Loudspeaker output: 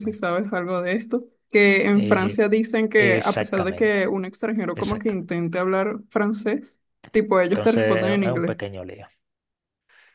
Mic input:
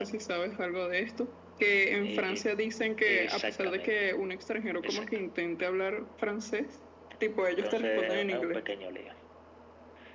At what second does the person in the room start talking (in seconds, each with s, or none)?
none